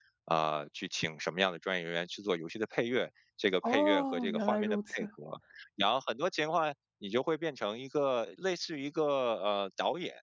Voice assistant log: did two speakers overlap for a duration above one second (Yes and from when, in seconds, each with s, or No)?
Yes, from 3.6 s